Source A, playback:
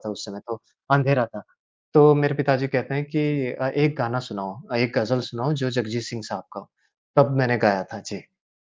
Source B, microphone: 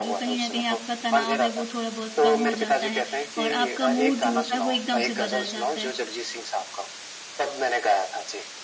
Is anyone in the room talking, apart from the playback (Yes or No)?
Yes